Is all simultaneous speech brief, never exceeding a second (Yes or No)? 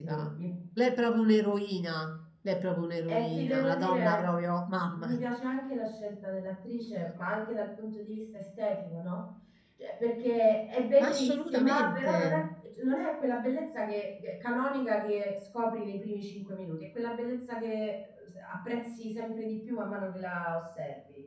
No